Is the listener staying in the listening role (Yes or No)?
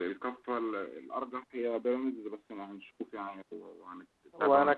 No